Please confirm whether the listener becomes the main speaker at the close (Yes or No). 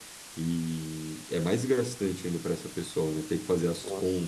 No